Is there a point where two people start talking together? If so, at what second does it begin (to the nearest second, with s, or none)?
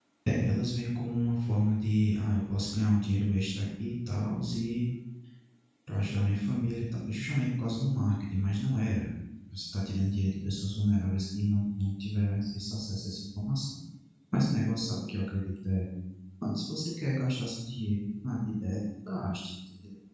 none